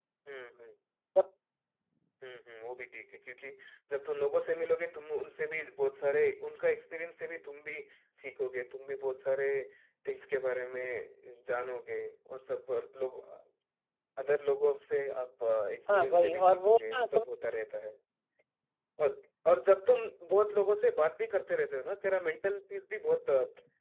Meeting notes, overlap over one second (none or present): present